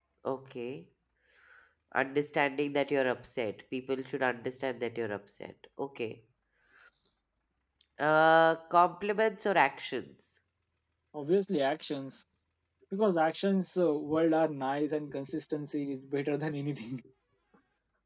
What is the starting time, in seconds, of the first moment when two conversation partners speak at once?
none

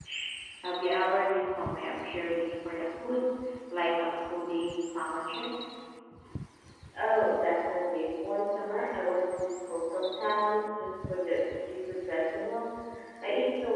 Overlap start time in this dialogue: none

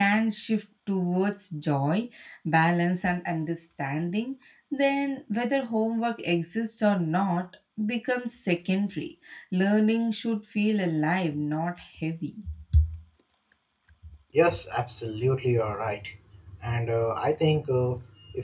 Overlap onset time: none

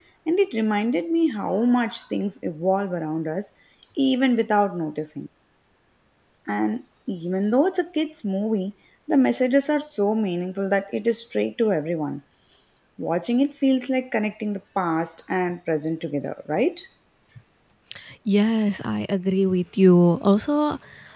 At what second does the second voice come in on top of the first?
none

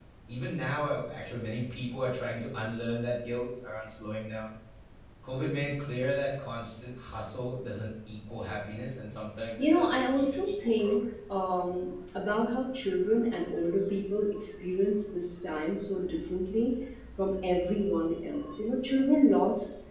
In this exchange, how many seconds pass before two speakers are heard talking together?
10 s

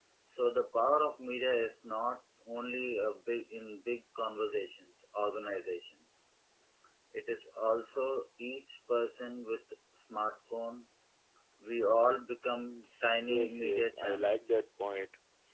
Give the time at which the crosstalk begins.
13 s

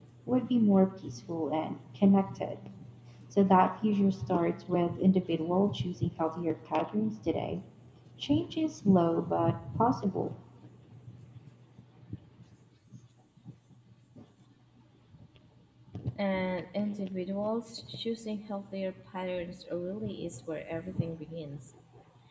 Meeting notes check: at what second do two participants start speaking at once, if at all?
none

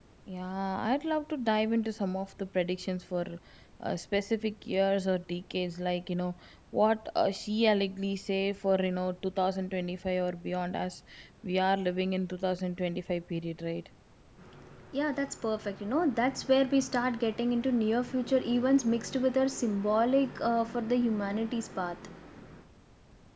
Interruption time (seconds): none

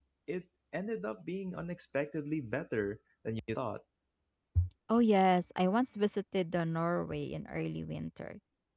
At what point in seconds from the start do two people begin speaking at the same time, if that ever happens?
none

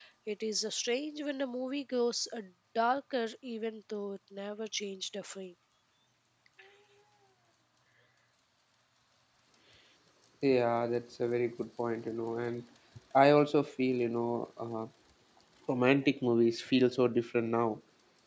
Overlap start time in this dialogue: none

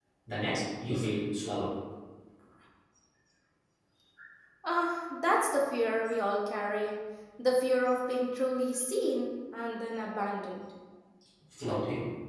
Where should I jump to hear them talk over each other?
none

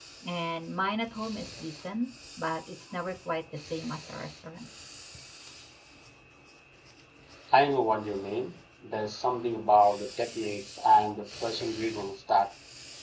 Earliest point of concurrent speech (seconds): none

